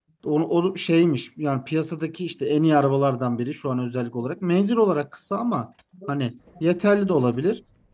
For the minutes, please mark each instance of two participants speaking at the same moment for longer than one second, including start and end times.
none

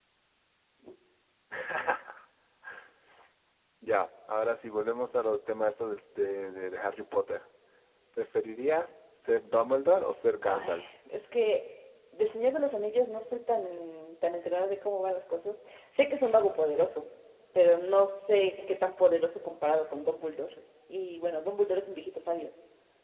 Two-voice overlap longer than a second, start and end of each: none

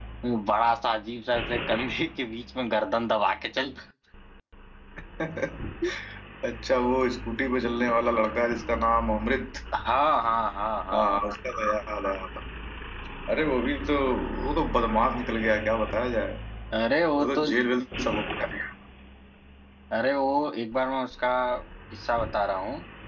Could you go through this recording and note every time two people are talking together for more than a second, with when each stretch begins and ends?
none

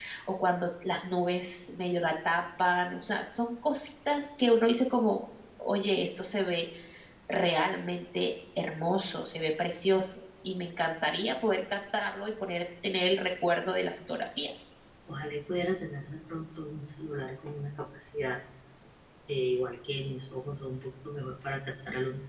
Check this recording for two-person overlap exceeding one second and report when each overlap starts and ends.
none

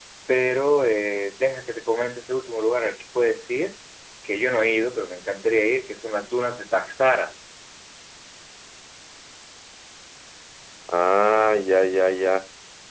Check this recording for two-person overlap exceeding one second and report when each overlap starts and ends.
none

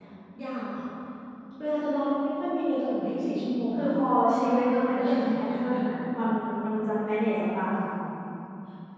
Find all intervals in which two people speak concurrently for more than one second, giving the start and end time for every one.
4.3-5.8

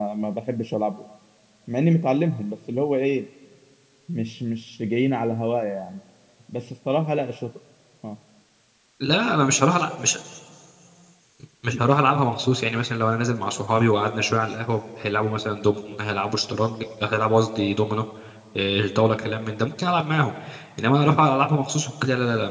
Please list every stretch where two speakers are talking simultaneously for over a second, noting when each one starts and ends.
none

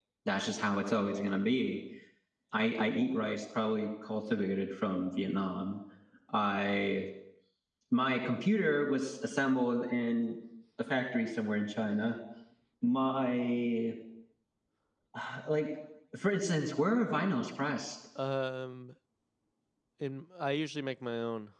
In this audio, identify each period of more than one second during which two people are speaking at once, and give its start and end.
none

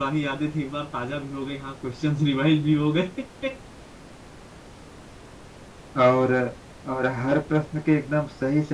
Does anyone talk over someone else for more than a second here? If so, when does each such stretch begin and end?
none

